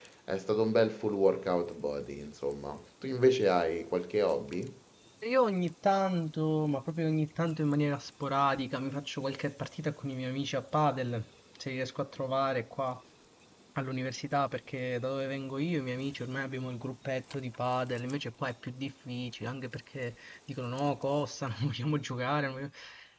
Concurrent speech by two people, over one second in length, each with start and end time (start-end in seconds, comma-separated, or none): none